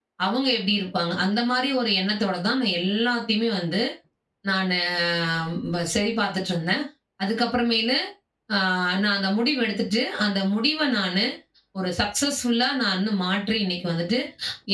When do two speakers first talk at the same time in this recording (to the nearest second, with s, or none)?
none